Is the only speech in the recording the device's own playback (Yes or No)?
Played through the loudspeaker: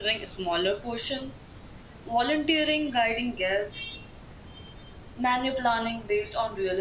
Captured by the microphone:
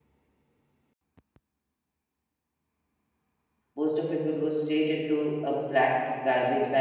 No